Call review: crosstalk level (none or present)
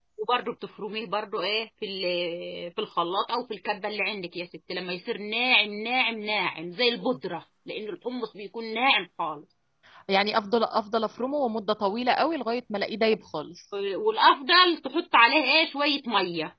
none